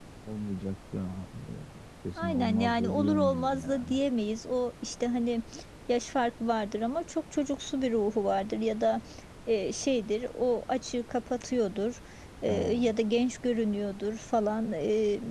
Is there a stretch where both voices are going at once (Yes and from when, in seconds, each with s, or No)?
Yes, from 2.2 s